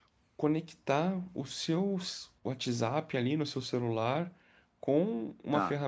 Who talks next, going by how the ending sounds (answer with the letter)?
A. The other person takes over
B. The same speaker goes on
B